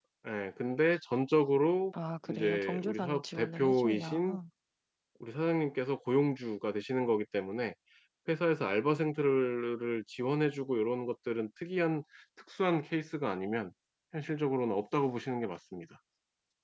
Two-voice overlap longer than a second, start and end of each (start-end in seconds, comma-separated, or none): 2.3-4.2